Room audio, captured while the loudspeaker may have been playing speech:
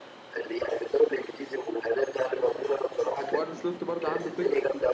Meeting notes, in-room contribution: present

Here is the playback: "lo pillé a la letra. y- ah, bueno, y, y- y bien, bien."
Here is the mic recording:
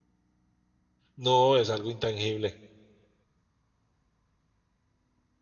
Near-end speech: present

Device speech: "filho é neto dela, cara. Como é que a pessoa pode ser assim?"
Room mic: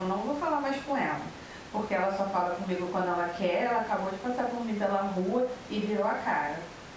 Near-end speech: present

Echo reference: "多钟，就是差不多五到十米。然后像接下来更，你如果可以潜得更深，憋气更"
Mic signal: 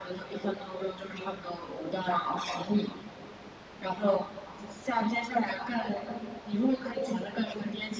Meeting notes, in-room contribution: none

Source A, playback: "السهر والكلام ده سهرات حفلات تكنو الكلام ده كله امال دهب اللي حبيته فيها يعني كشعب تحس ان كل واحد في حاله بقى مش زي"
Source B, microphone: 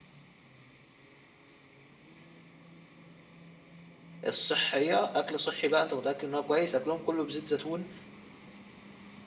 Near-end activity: present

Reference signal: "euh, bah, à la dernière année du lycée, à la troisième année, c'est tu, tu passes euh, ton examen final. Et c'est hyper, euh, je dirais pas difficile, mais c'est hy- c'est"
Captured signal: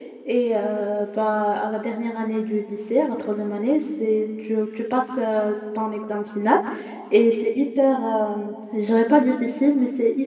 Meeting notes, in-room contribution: none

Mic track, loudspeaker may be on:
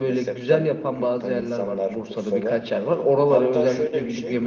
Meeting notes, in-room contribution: none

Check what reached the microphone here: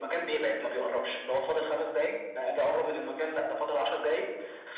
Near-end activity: none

